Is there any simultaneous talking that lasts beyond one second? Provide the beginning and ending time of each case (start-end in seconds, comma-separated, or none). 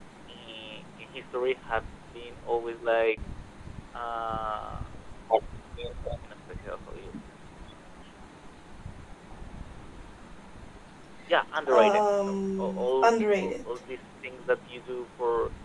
11.7-13.6